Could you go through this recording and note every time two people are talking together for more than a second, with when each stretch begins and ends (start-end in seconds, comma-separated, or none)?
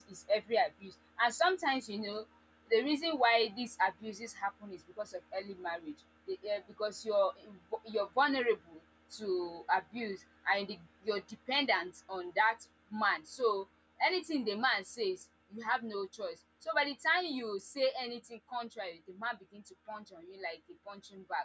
none